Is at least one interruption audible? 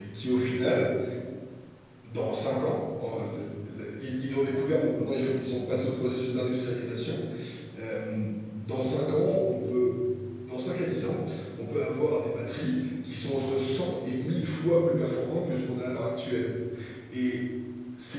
No

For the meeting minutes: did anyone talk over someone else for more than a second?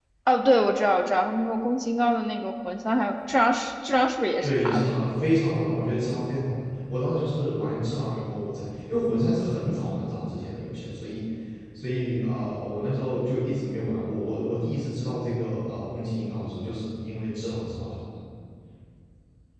No

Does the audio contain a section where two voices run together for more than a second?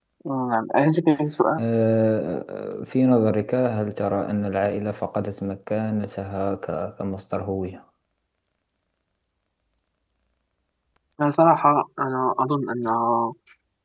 No

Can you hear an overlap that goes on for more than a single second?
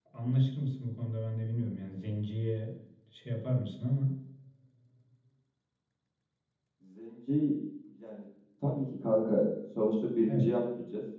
No

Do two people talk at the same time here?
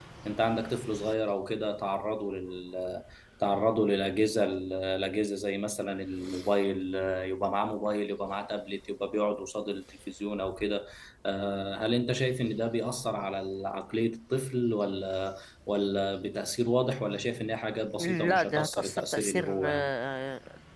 Yes, from 18.0 s

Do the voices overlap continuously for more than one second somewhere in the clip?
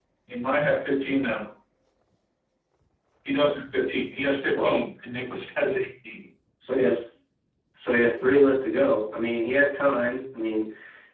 No

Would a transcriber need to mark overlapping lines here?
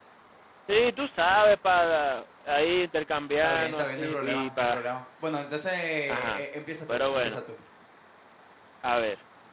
Yes, from 3.4 s

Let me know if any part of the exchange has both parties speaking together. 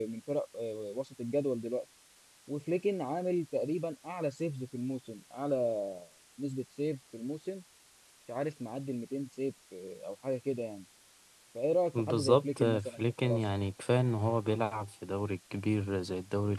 Yes, from 11.9 s

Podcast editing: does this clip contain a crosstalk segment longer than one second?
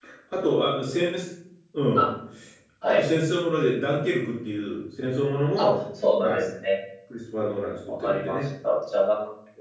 No

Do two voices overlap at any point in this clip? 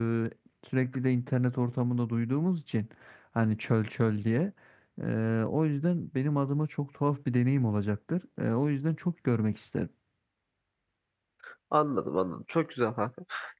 No

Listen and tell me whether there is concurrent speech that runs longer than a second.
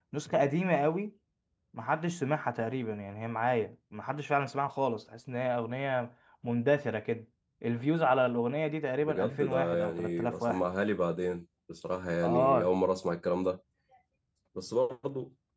Yes, from 9.0 s

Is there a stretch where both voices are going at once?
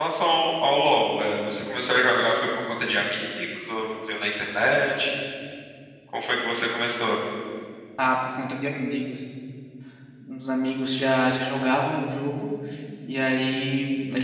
No

